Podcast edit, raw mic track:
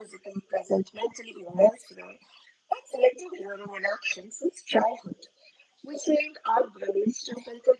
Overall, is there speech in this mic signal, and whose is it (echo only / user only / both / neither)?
echo only